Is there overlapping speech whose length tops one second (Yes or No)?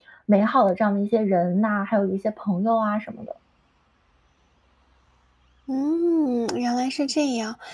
No